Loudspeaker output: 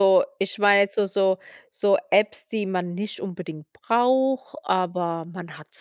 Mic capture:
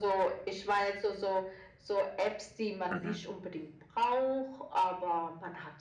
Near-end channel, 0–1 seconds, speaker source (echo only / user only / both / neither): echo only